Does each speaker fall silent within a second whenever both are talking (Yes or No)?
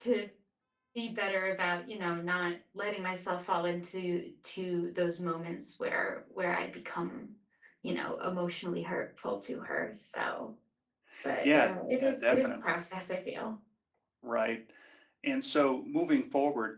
No